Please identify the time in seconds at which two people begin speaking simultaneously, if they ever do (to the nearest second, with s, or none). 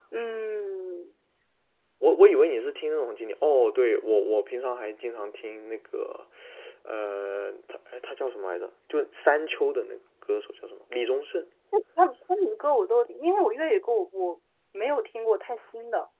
none